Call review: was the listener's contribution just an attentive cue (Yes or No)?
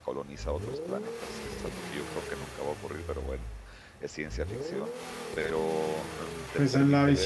No